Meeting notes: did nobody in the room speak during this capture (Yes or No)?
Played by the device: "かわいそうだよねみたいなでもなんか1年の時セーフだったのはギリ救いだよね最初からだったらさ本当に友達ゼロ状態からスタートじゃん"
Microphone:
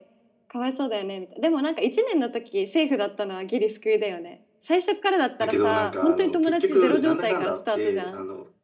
No